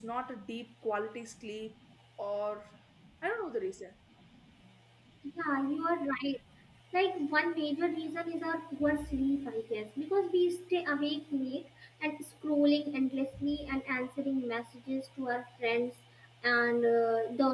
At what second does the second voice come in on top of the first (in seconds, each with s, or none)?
none